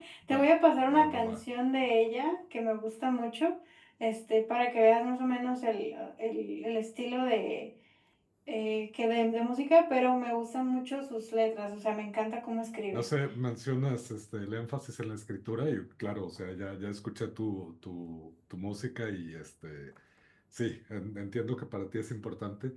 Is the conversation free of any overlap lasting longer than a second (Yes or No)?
Yes